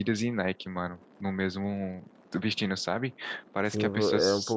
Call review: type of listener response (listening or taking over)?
taking over